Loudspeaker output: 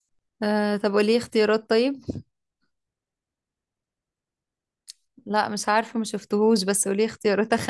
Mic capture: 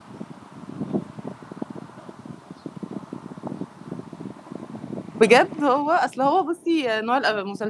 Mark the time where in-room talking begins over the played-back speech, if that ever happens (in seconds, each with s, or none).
5.2 s